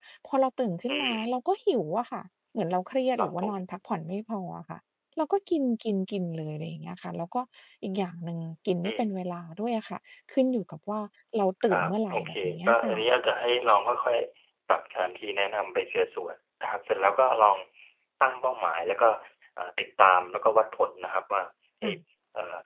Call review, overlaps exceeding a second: present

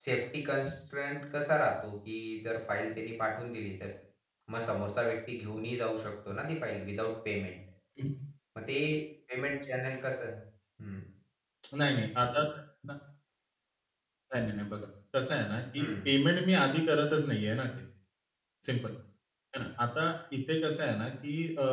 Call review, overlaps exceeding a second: none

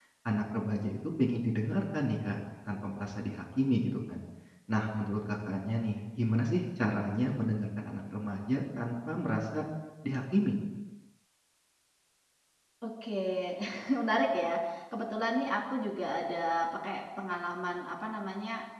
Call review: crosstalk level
none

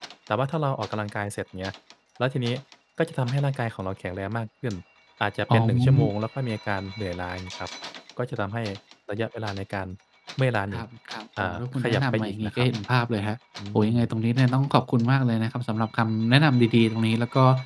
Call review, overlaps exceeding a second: present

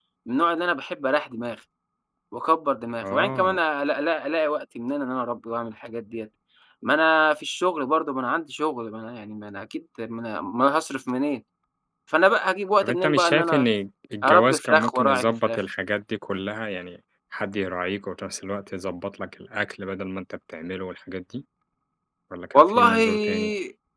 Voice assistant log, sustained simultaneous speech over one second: present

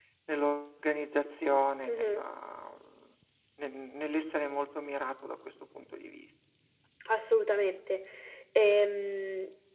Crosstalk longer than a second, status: none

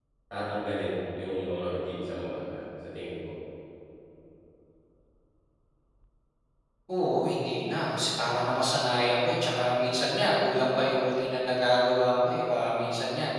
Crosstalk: none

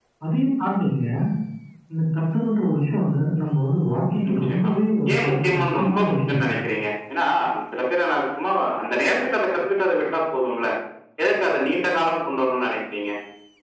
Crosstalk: present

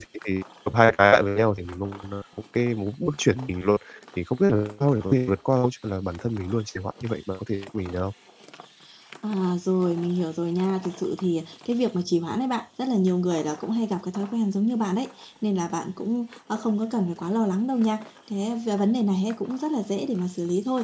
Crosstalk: none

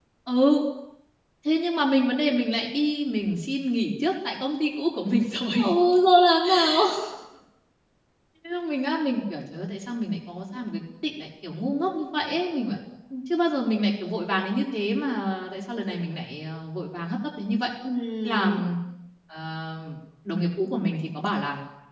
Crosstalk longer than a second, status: none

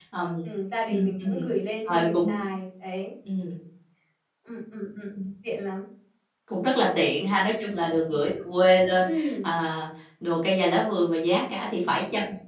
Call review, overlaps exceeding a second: none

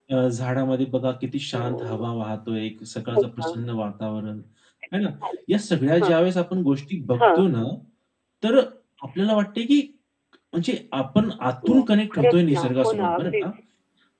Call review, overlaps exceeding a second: present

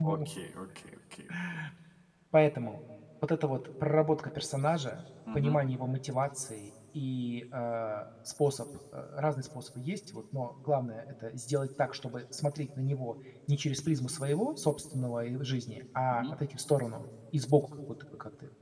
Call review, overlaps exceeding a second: none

